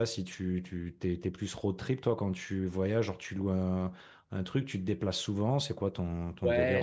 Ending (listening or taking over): taking over